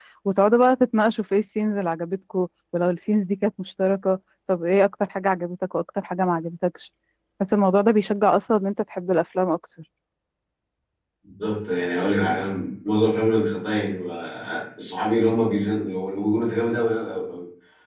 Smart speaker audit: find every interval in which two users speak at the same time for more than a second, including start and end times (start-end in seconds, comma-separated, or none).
none